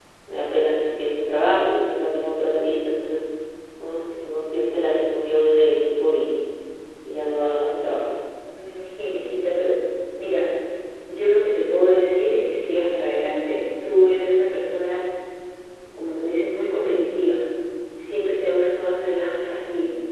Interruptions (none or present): none